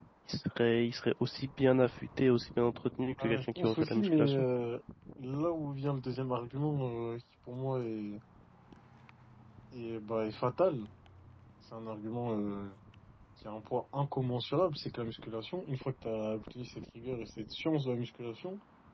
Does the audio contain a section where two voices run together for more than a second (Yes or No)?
Yes